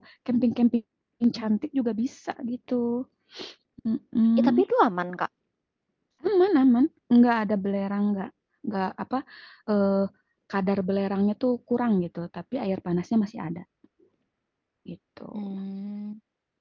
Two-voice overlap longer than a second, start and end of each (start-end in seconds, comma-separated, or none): none